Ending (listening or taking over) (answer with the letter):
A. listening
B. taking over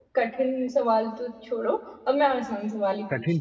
B